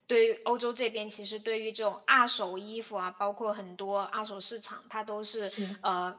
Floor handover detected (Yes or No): No